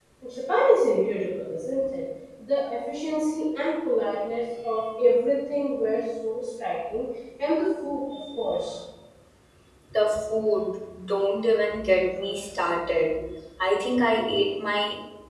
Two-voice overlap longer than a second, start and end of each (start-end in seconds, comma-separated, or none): none